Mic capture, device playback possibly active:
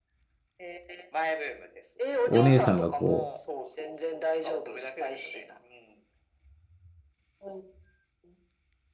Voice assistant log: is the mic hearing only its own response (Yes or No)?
No